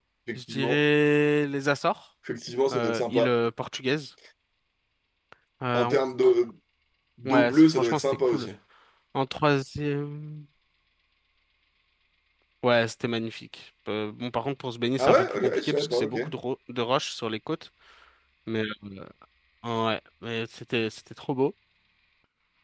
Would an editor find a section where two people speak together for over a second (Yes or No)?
Yes